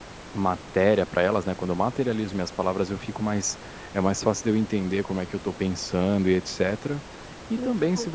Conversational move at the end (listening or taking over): listening